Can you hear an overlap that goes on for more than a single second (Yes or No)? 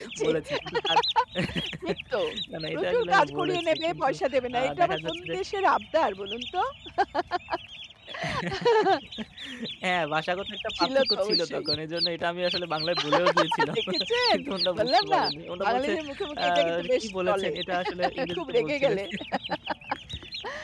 Yes